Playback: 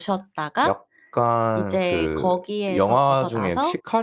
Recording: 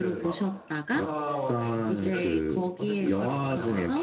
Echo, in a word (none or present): present